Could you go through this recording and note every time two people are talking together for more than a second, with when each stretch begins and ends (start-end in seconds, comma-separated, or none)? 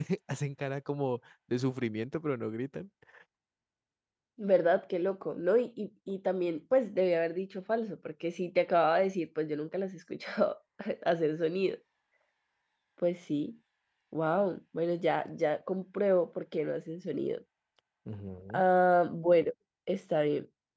none